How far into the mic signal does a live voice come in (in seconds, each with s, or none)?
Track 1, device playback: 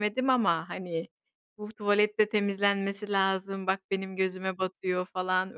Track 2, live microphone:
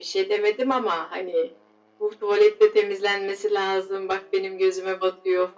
none